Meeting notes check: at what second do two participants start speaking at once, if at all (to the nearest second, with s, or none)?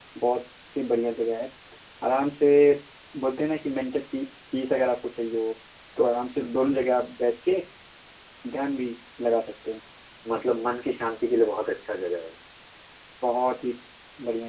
none